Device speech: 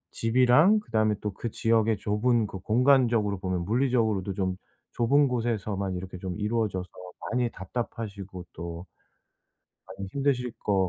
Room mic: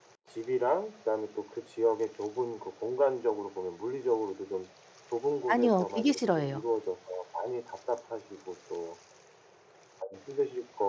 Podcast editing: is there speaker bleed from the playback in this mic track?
Yes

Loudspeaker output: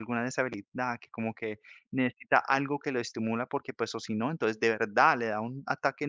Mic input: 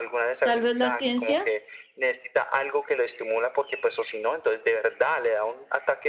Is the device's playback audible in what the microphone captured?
Yes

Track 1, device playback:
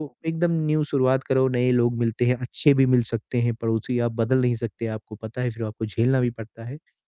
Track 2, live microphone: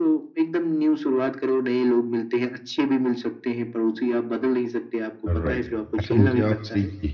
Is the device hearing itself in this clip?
Yes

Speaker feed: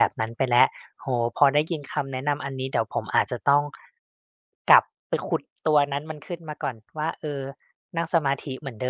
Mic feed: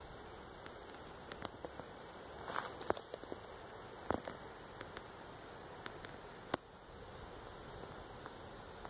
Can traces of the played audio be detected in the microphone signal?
No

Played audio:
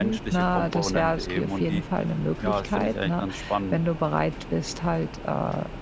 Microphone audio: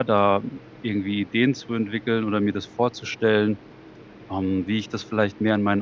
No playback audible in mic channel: Yes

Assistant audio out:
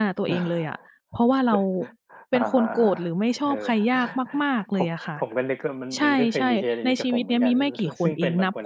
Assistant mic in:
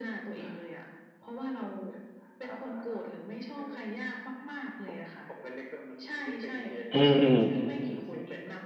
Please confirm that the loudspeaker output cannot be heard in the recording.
No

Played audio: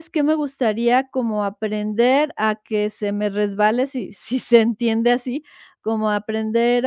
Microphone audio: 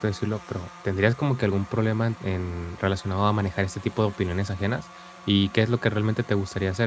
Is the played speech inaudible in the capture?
Yes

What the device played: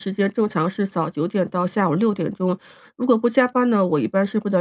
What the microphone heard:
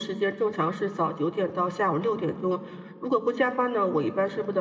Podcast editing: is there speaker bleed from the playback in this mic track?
Yes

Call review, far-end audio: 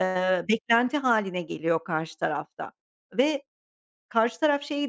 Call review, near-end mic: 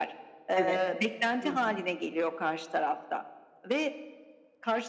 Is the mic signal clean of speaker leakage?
No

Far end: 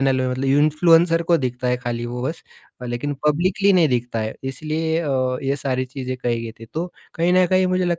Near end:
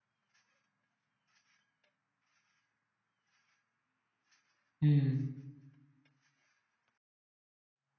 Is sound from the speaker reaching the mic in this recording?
No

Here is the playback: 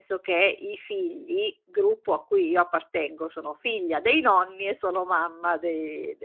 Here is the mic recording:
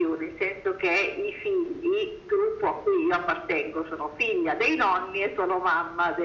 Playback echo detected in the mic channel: Yes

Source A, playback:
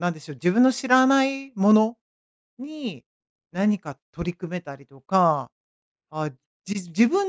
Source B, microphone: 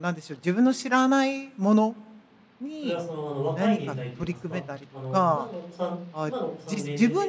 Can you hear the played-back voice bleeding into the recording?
Yes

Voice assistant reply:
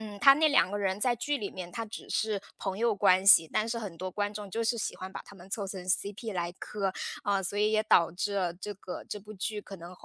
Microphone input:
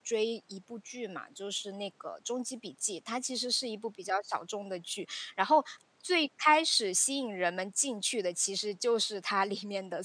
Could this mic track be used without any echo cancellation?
Yes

